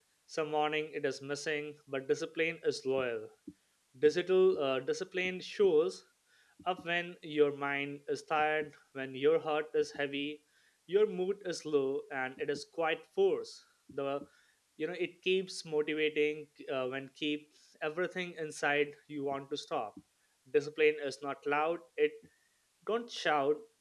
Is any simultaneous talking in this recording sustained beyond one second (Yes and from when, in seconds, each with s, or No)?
No